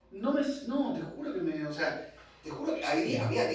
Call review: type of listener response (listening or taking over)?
listening